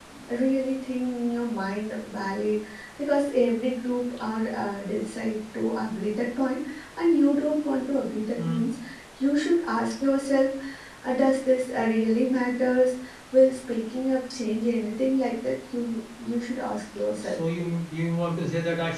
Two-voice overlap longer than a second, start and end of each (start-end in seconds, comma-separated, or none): none